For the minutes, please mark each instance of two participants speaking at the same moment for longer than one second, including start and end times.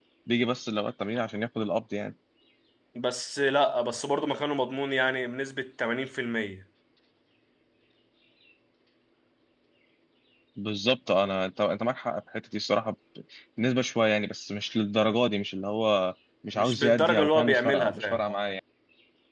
16.6-18.3

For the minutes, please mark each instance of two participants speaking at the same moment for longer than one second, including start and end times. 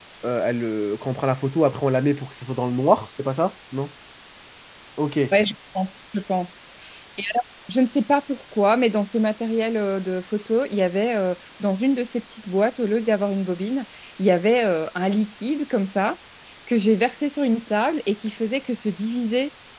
none

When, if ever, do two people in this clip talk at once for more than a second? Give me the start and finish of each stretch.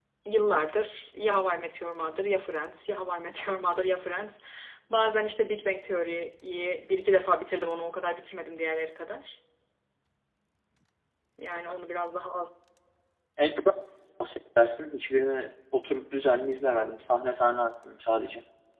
none

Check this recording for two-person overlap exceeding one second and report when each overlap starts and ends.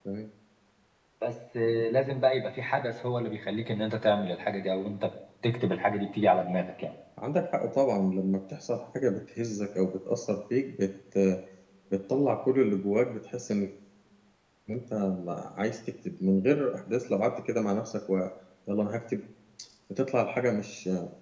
none

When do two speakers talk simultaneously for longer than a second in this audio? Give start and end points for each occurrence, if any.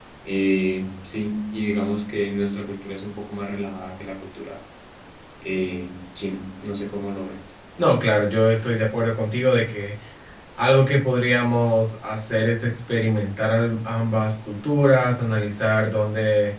none

